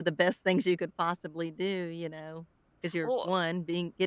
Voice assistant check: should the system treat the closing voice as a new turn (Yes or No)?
No